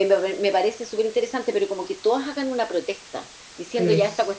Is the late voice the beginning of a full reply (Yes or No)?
No